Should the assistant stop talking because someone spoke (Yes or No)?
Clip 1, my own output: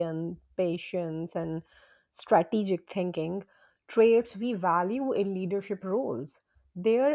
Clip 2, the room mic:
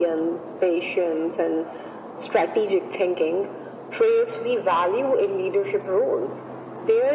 No